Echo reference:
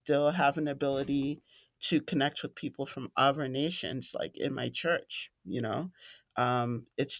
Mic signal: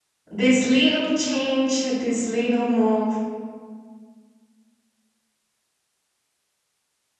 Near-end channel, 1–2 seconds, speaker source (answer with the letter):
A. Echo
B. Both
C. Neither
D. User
D